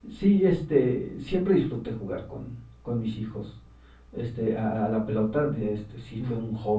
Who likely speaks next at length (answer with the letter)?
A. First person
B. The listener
A